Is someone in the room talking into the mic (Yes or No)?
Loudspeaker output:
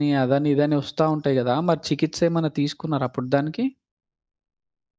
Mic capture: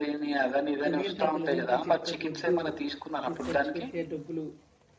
Yes